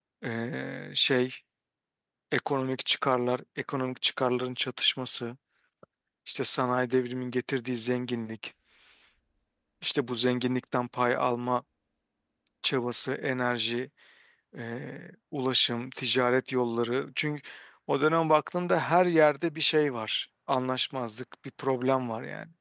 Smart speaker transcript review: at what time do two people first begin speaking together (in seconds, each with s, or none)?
none